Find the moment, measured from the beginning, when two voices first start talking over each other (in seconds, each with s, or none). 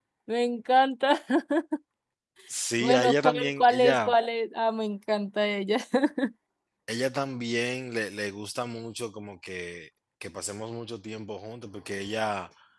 2.8 s